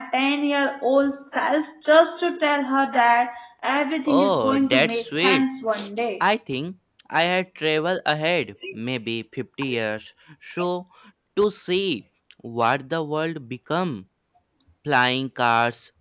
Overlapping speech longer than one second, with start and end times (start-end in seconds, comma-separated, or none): 4.1-5.4